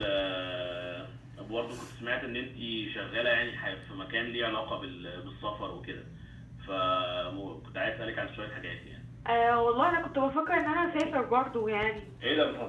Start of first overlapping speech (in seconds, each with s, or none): none